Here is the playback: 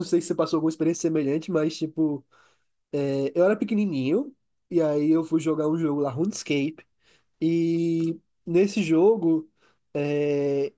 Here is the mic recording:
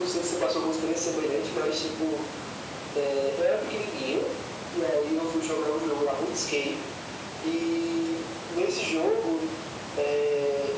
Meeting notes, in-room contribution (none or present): none